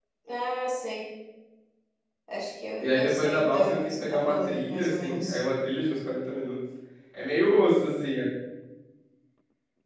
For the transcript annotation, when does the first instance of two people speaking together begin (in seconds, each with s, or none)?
2.8 s